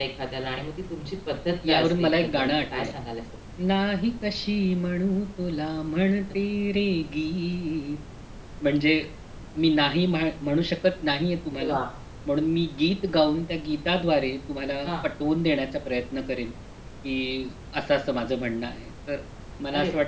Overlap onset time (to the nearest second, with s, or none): 2 s